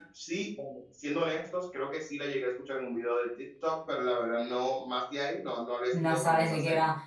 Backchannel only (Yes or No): No